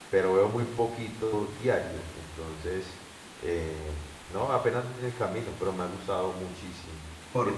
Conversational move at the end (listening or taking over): taking over